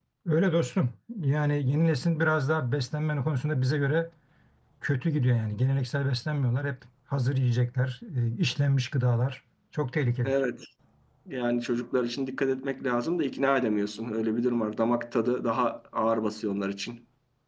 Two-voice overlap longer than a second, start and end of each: none

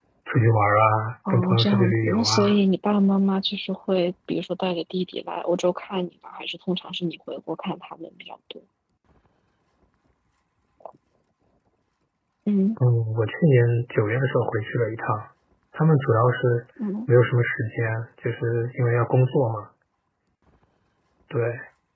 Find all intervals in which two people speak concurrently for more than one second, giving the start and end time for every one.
1.3-2.6

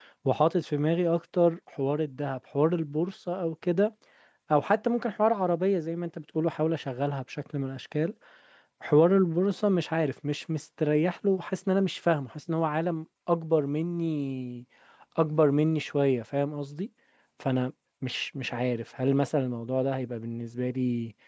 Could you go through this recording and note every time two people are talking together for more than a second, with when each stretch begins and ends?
none

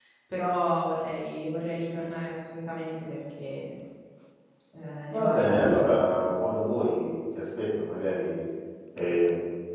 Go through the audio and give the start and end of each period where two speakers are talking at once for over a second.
5.1-6.4

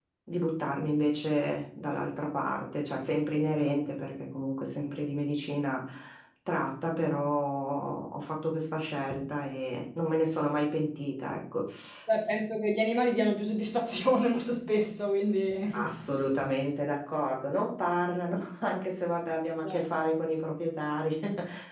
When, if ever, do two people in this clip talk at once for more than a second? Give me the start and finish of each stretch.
none

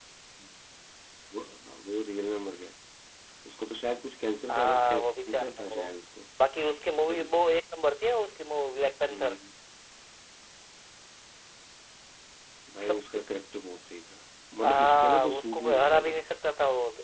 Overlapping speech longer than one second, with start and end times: 4.5-5.9, 14.6-16.2

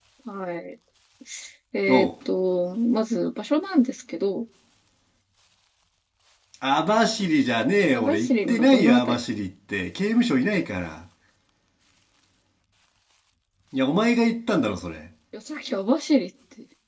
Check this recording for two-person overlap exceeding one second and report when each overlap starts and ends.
8.0-9.2

